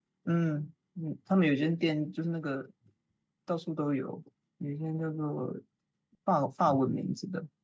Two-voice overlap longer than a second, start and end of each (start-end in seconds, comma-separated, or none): none